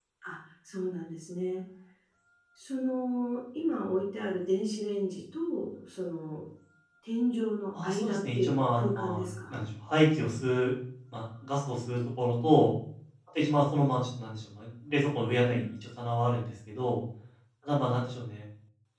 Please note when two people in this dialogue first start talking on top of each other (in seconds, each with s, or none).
7.8 s